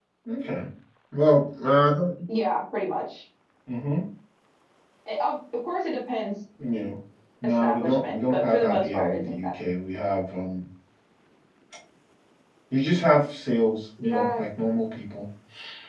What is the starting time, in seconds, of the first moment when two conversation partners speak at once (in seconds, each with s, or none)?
7.4 s